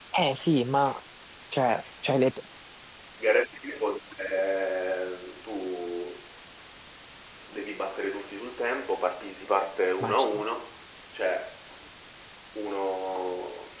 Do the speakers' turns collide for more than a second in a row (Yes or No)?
No